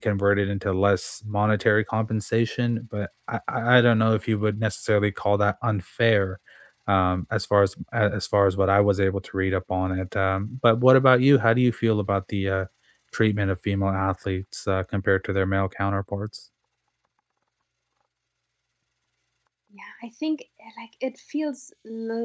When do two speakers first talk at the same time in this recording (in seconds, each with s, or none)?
none